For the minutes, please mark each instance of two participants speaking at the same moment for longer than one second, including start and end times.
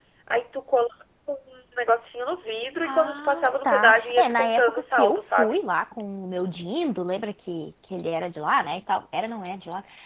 2.8-5.6

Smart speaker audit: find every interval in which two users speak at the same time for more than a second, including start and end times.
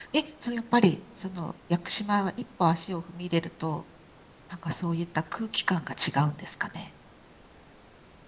none

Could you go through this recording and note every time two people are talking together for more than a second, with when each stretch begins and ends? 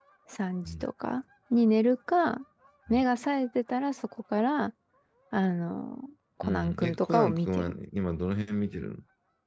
6.4-7.7

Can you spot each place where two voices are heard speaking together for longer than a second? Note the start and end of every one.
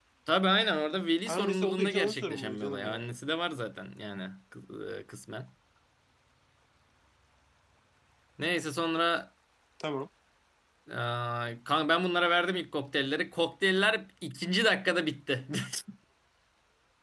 1.3-3.1

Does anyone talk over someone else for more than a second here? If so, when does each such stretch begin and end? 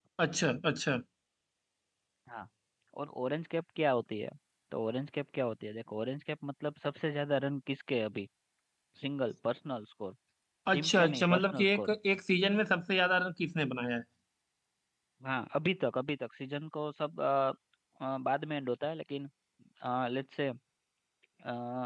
10.7-11.9

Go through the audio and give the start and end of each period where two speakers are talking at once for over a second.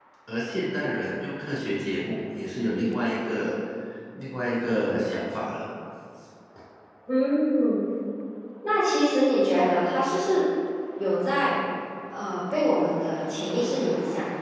none

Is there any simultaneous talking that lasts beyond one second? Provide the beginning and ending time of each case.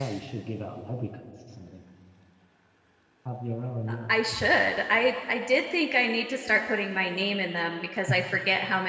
none

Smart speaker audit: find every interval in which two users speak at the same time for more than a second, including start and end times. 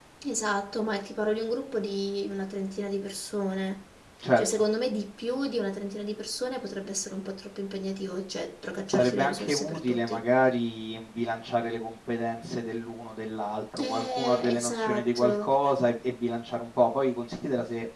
8.9-10.2, 13.8-15.5

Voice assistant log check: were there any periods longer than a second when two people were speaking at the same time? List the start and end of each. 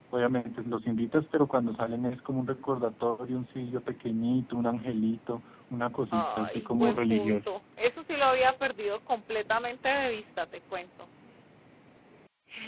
6.1-7.5

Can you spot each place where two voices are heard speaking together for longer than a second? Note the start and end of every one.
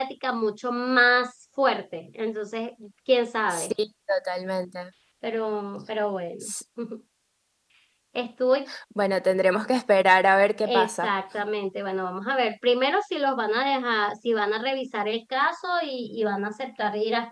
none

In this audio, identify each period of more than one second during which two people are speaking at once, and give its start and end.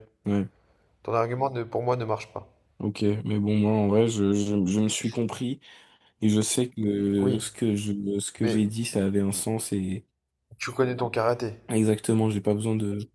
none

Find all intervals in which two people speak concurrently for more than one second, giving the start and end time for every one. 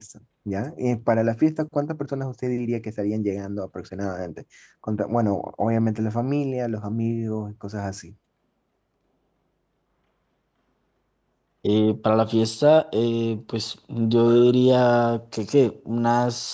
none

